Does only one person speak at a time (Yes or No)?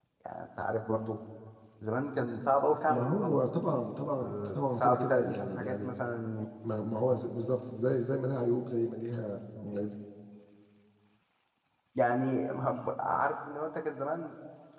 No